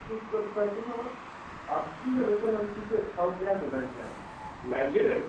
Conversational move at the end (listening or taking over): taking over